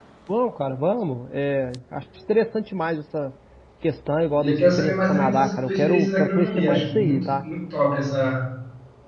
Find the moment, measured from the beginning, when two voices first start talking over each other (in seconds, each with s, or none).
4.3 s